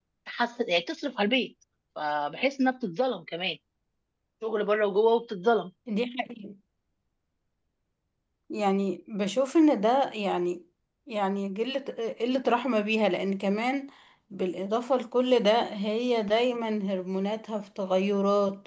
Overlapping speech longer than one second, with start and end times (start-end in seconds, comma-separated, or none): none